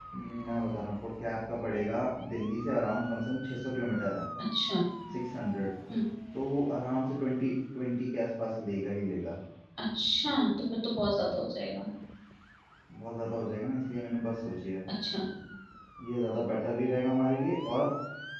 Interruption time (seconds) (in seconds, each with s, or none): none